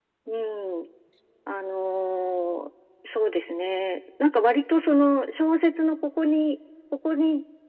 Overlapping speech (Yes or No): No